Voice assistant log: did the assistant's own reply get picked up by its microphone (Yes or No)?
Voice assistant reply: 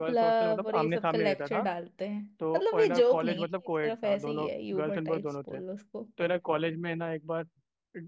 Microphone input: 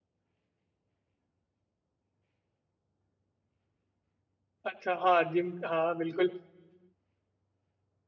No